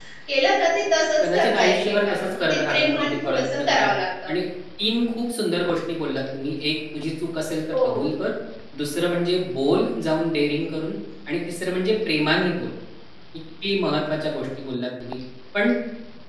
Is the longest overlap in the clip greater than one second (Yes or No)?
Yes